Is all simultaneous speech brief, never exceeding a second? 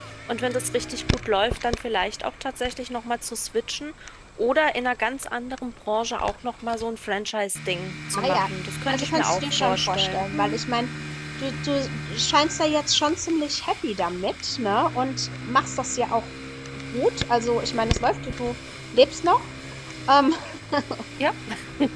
No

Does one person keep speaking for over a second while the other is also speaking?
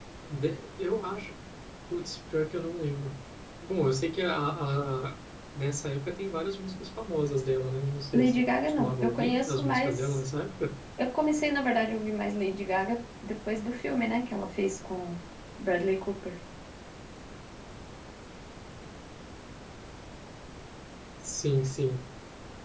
Yes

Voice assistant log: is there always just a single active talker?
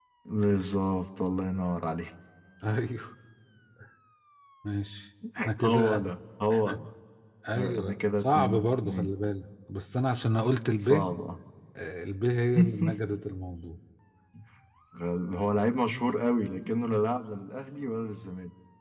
No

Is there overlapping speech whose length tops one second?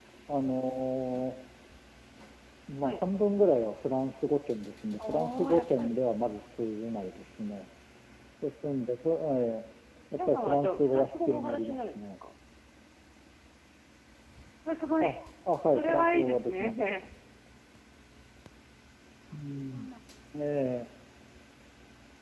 Yes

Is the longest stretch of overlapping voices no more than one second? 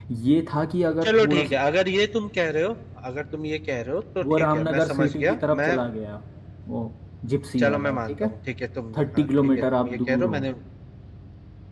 No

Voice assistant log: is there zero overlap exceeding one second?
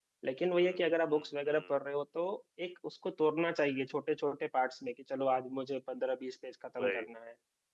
No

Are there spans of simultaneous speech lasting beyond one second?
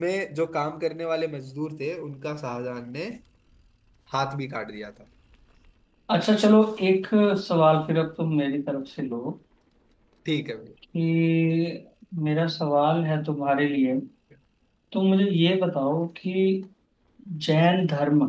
No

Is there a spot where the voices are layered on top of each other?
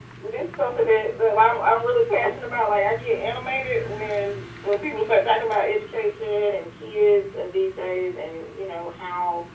No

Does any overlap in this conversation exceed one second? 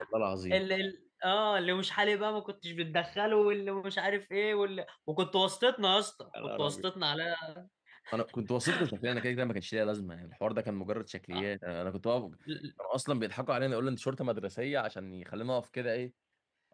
No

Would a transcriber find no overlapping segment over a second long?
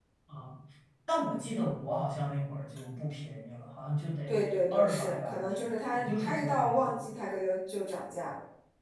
No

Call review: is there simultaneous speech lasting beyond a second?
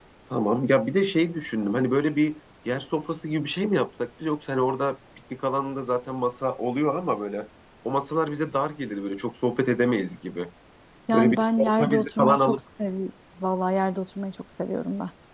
Yes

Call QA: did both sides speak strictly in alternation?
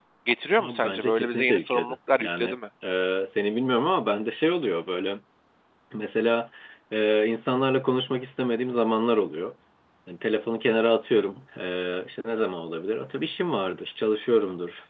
No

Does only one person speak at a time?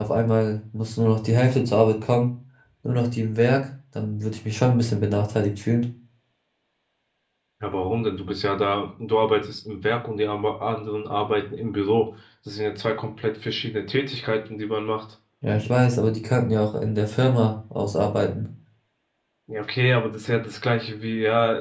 Yes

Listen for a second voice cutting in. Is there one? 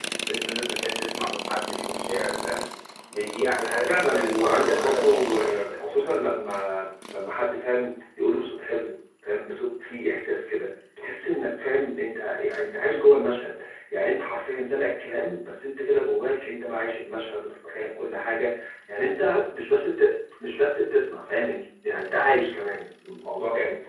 Yes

